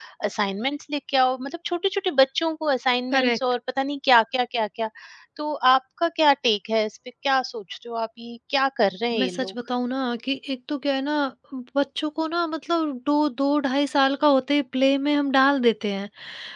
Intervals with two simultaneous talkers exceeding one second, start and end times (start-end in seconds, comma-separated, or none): none